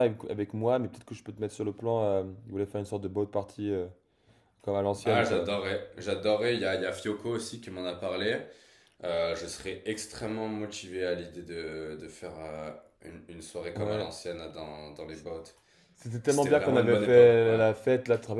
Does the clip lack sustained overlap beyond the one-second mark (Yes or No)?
No